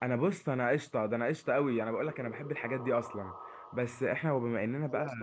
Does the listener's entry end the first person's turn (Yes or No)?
Yes